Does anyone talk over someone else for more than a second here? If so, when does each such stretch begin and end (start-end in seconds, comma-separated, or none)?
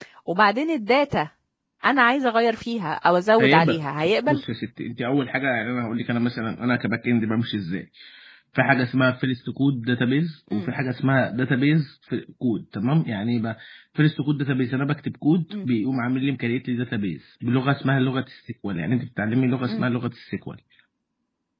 none